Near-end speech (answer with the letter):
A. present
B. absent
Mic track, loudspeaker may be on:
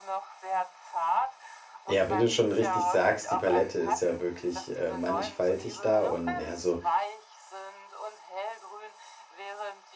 A